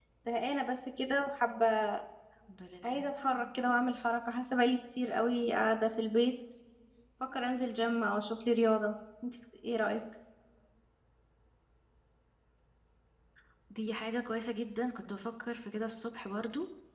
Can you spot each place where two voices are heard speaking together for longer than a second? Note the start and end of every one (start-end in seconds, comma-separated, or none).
none